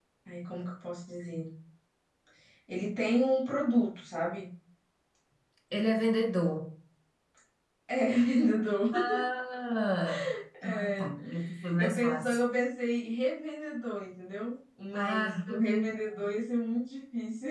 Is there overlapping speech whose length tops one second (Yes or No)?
Yes